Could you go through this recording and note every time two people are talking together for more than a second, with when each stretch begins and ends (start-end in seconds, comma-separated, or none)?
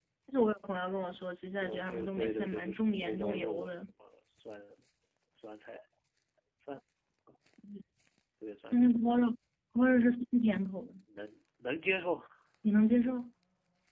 1.6-3.8